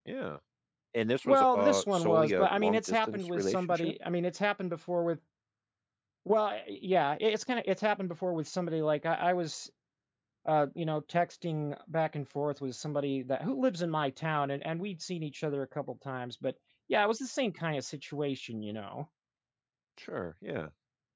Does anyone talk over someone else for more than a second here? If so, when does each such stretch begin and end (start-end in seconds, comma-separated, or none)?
1.2-3.9